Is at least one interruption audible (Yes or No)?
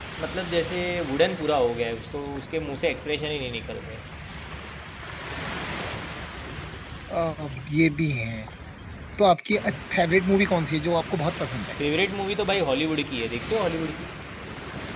No